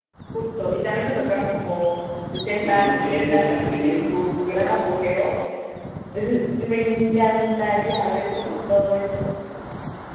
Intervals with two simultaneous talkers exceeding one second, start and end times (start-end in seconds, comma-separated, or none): 2.5-4.1